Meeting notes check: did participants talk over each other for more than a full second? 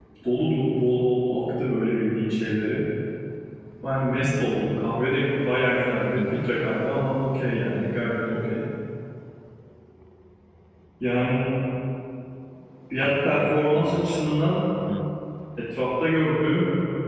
Yes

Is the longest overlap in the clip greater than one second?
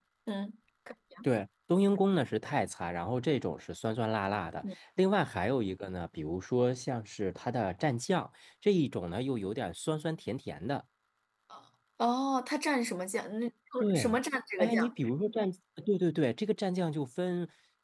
No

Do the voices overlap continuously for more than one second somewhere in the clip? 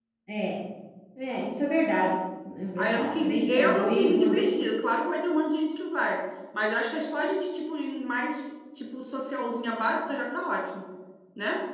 Yes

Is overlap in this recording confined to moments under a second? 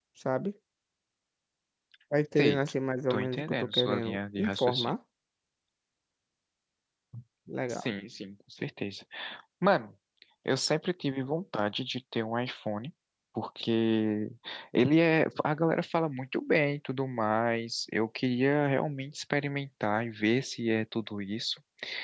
No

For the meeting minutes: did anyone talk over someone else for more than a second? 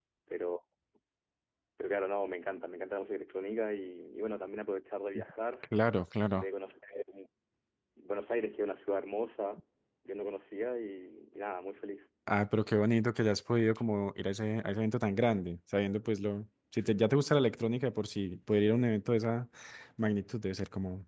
No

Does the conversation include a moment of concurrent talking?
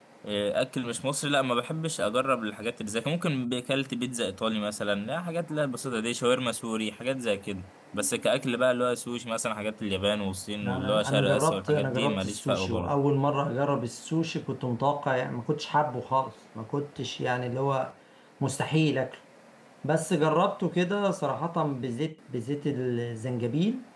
Yes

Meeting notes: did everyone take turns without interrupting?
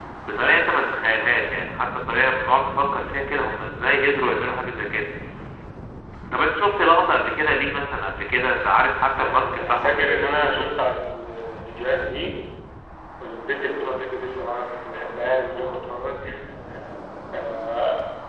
No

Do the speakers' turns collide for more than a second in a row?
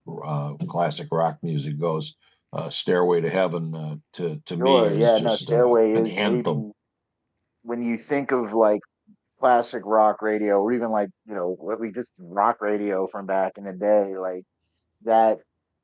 Yes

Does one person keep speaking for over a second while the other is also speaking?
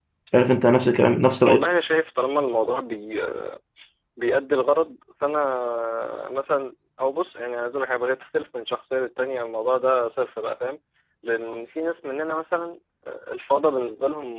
No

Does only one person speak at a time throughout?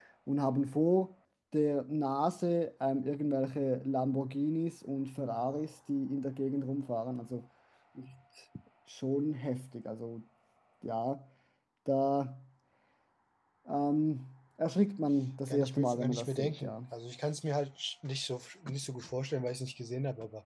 No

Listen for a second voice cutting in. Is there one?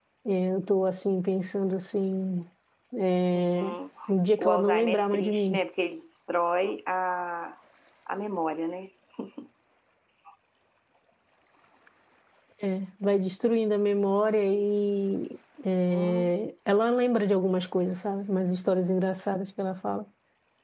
Yes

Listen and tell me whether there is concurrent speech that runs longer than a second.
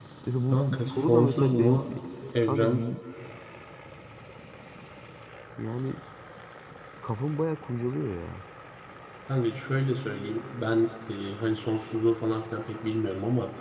Yes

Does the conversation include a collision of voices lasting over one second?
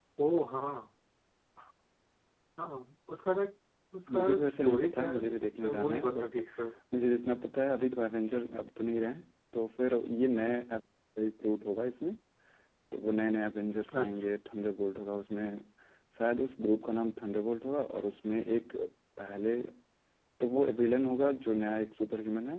Yes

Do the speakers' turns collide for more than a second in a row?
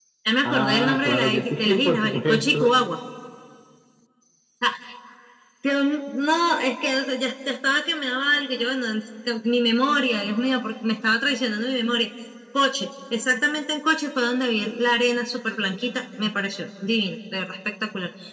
Yes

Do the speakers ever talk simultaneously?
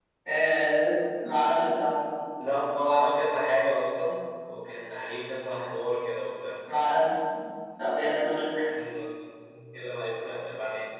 No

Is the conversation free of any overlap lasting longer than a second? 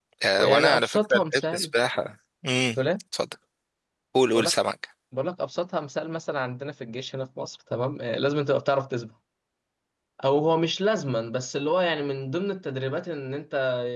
No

